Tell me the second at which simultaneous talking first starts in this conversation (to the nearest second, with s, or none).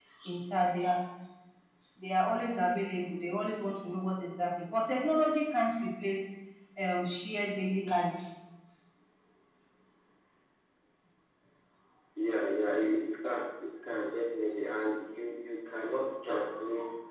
none